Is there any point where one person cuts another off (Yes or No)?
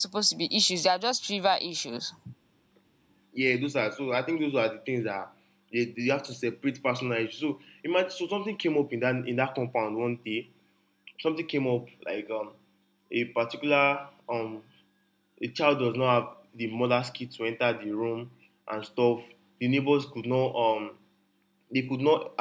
No